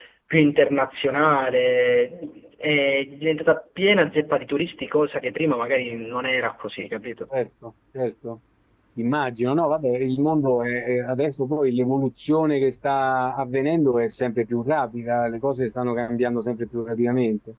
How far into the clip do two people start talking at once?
none

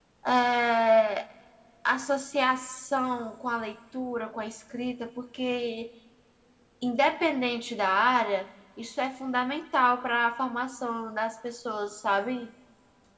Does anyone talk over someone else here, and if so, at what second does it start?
none

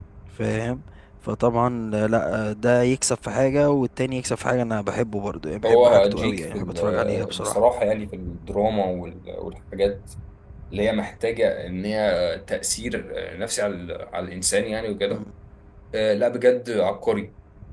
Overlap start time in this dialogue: 6 s

